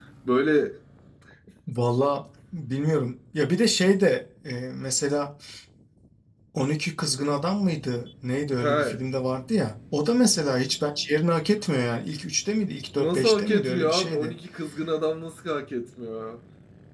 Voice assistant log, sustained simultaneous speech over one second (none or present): present